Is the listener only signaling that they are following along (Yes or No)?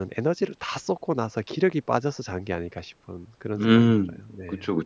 No